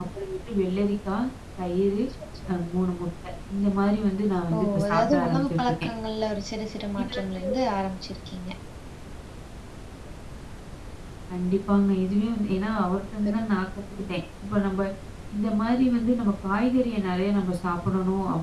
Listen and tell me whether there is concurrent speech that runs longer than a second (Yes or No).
Yes